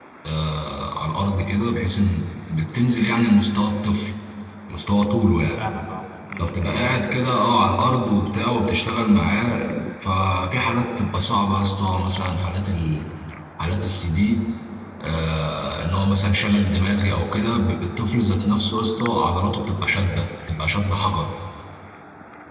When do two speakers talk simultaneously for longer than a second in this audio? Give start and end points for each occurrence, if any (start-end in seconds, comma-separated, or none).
none